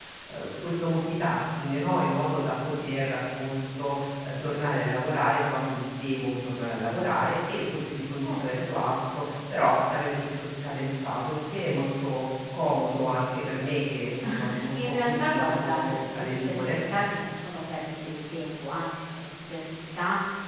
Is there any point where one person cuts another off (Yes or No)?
Yes